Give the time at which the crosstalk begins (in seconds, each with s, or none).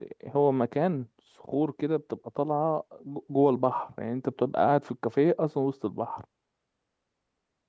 none